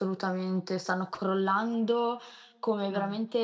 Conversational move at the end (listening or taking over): listening